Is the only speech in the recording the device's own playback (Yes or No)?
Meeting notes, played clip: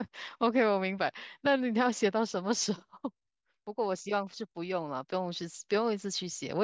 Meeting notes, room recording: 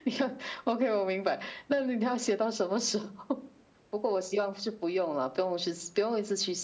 Yes